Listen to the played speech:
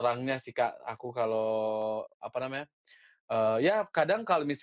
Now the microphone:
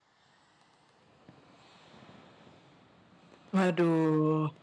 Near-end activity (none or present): present